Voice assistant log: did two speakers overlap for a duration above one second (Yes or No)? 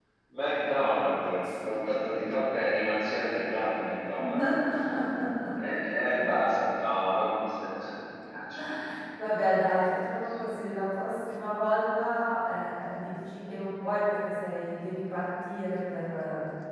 No